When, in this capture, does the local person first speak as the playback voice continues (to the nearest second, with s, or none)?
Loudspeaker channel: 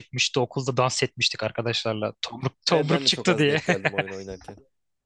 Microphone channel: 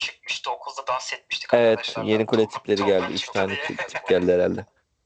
2 s